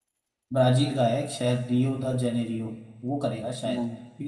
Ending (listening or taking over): listening